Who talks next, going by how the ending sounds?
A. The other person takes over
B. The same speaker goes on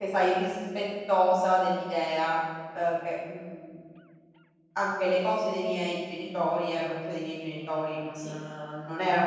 B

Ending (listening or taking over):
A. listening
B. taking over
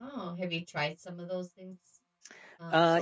B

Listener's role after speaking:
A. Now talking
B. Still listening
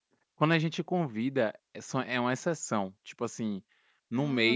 B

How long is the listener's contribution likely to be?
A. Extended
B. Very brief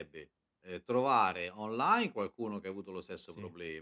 B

